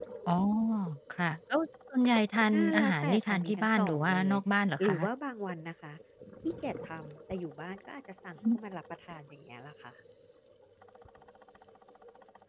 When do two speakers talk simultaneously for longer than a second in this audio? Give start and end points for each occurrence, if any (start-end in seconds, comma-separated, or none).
2.5-4.4